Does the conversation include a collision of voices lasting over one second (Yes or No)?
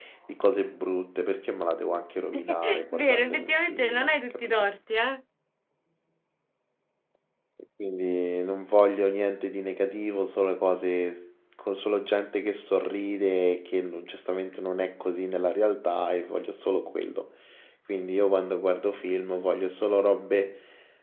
Yes